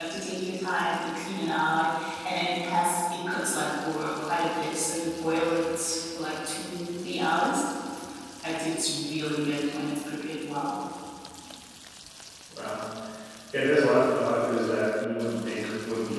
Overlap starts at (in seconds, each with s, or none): none